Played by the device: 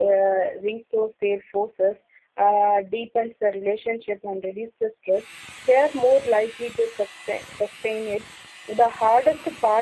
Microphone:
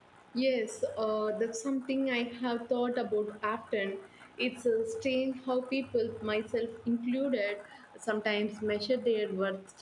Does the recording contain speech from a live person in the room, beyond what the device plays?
Yes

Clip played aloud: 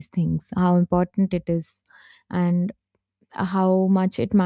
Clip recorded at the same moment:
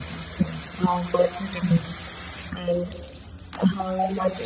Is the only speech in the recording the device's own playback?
Yes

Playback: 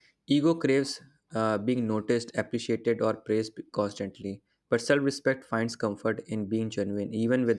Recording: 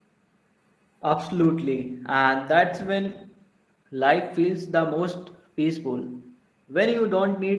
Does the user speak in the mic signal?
Yes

